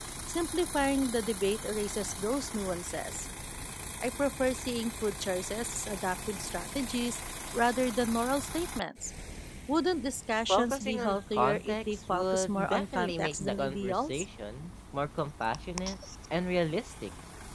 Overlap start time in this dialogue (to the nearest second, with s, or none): 10 s